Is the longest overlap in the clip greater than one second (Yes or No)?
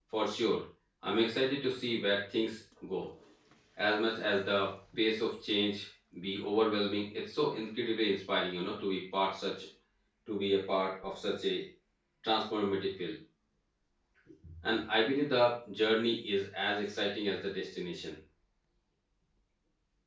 No